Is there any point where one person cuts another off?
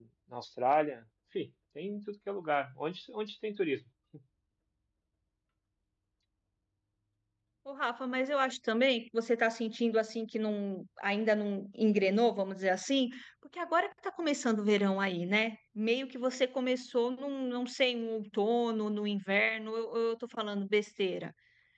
No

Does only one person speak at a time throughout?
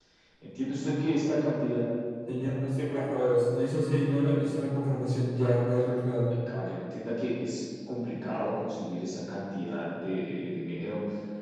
Yes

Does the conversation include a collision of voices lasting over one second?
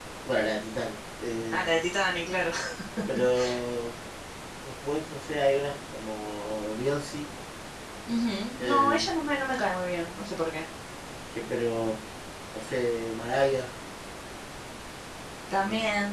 No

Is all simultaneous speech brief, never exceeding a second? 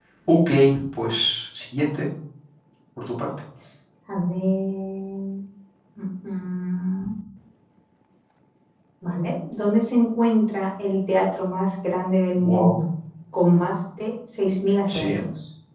Yes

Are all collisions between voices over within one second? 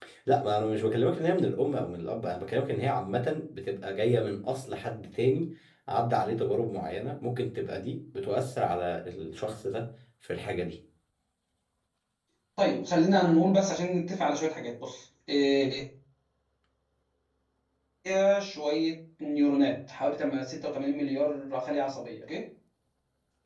Yes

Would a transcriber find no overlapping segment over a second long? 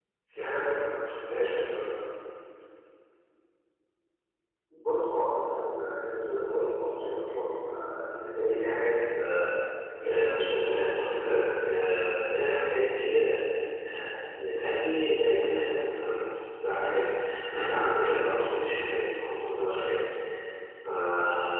Yes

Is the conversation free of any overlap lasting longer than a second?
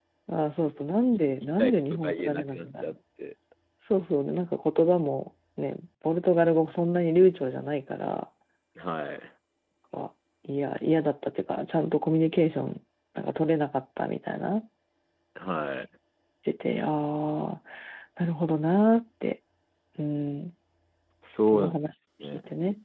No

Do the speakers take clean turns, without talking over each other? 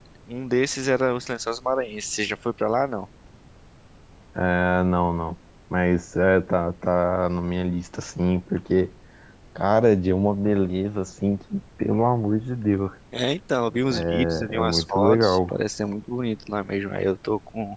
No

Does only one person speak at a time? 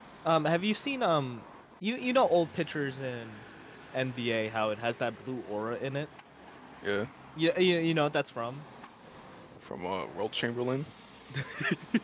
Yes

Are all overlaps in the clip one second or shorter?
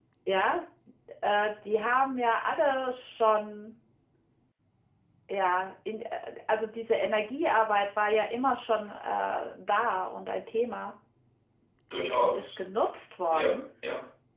Yes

